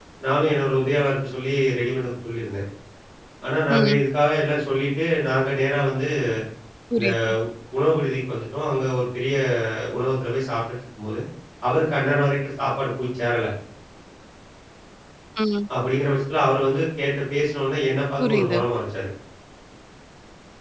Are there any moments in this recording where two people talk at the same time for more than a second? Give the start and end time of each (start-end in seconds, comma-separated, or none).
none